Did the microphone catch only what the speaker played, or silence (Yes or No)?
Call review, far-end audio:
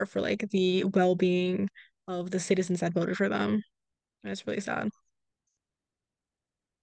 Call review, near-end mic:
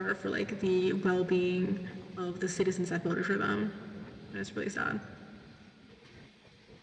Yes